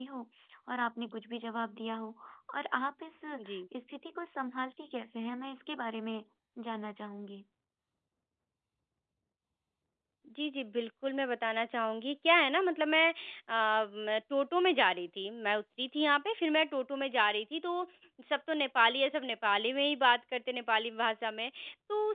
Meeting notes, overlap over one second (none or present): none